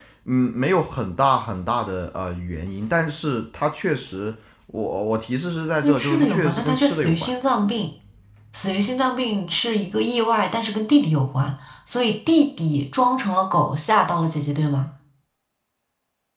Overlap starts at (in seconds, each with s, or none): 5.8 s